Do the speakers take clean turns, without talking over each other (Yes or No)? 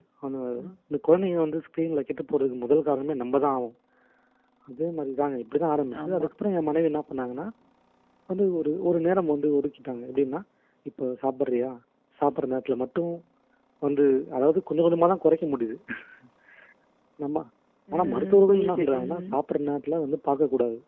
No